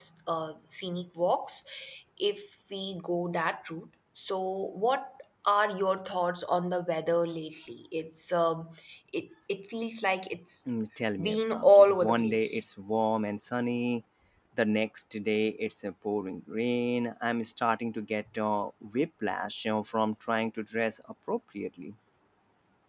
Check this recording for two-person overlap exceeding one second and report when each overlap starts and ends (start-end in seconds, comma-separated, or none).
11.2-12.6